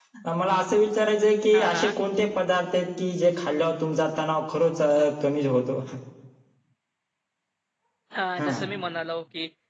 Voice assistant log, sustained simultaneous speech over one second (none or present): none